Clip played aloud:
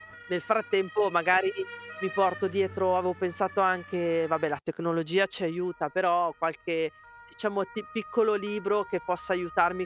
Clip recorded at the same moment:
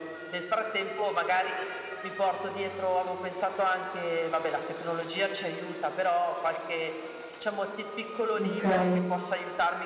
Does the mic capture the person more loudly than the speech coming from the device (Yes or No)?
Yes